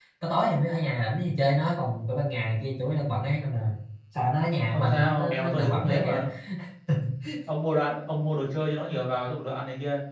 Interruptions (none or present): present